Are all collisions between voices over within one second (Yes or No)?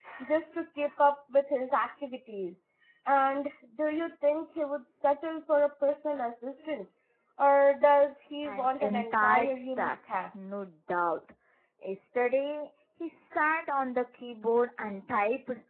No